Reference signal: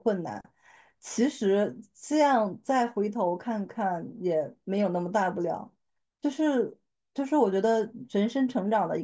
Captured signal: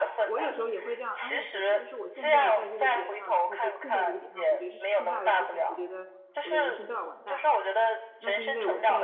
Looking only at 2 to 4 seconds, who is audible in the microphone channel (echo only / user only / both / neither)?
both